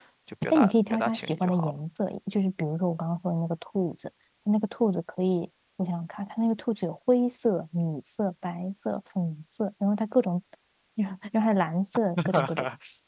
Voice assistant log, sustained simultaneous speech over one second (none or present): present